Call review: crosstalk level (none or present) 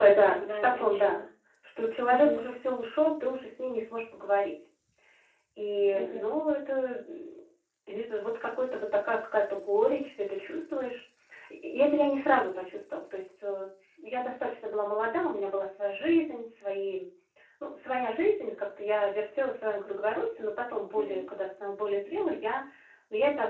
present